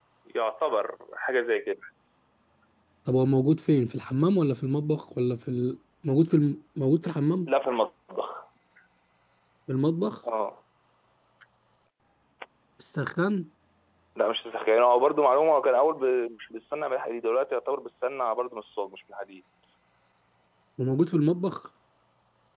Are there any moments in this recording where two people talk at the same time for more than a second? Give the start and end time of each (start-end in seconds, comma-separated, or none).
none